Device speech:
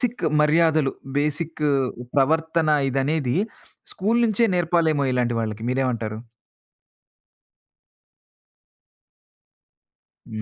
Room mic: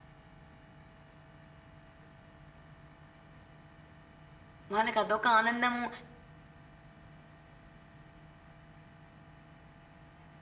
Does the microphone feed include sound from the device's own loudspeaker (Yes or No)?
No